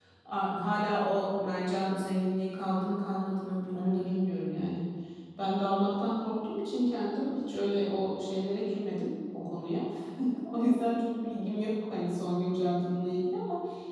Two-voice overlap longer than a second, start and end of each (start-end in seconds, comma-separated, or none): none